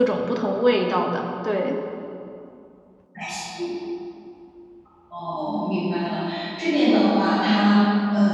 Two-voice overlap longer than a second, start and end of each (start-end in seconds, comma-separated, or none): none